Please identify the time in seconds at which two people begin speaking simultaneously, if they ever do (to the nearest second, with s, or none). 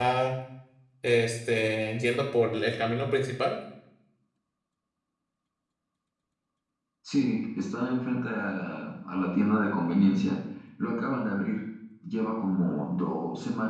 none